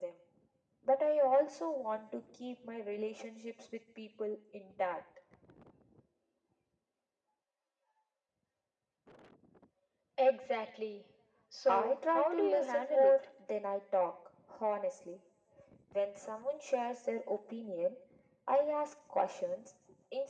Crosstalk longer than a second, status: present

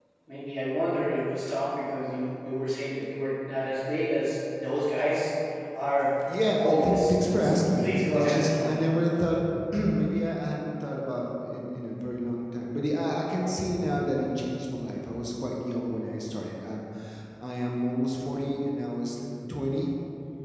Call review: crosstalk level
present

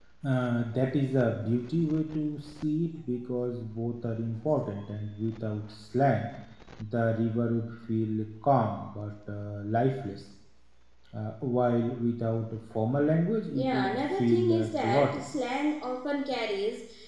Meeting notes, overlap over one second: present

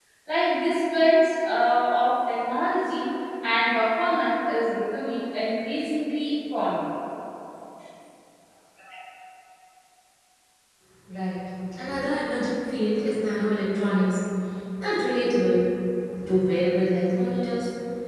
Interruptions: none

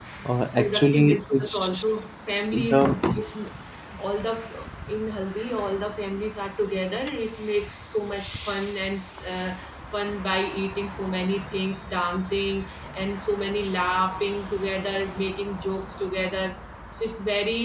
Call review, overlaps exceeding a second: present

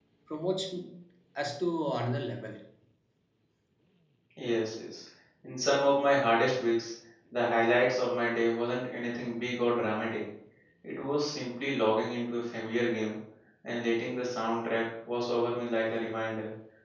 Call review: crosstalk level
none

